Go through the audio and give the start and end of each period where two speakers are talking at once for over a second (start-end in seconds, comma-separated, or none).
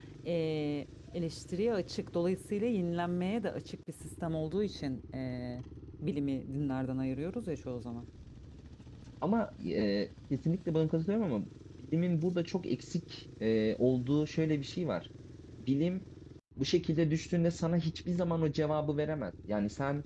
none